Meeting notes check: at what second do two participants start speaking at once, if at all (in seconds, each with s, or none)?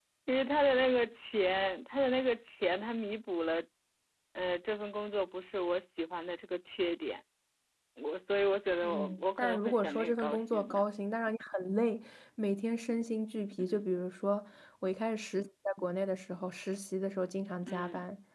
8.8 s